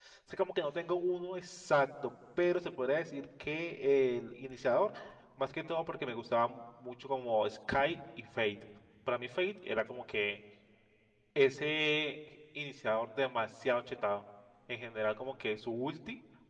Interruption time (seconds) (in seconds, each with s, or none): none